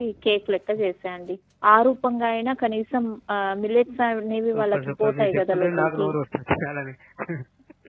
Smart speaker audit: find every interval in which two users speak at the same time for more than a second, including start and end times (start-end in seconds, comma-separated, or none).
4.5-6.1